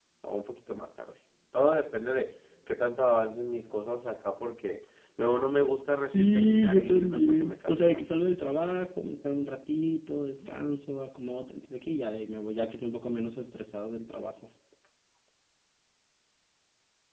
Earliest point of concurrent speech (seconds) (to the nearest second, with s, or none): 6 s